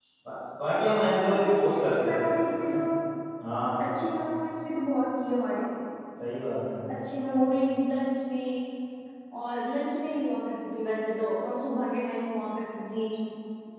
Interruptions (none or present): present